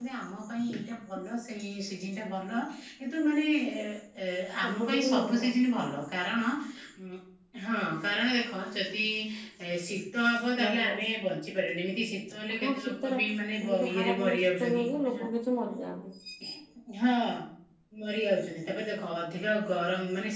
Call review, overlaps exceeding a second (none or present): present